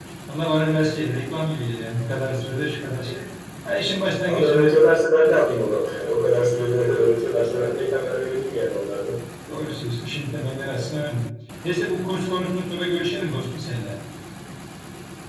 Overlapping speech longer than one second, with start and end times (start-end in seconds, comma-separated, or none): none